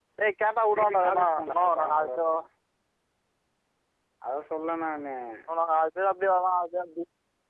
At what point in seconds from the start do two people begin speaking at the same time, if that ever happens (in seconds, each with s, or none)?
0.8 s